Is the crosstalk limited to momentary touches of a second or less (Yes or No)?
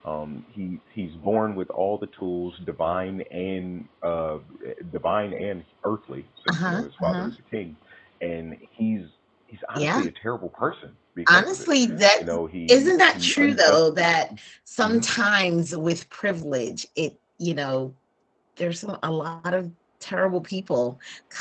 No